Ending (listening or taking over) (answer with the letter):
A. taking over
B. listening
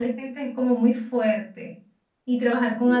B